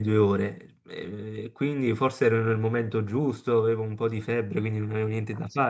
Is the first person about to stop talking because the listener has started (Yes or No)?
Yes